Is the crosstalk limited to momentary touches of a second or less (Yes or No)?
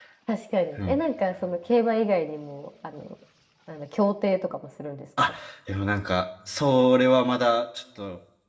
Yes